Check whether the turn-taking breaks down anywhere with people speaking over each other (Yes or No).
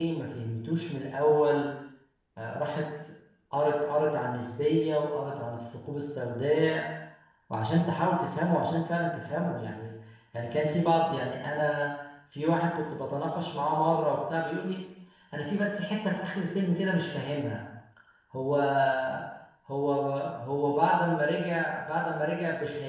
No